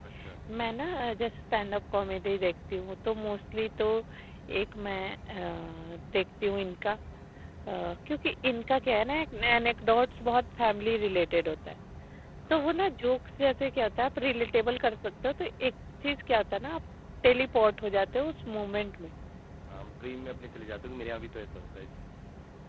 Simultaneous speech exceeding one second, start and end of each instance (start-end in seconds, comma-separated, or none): none